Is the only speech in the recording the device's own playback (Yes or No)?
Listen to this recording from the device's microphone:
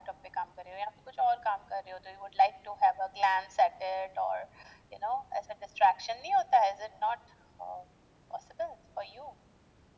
Yes